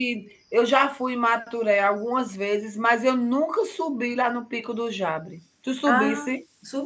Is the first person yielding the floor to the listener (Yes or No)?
Yes